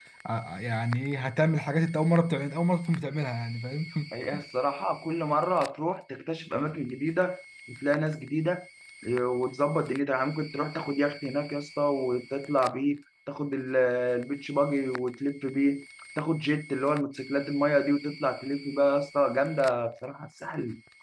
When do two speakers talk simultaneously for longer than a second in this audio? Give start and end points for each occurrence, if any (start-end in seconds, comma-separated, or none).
none